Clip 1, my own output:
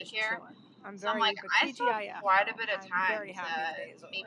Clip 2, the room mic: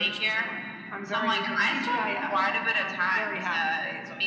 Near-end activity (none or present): none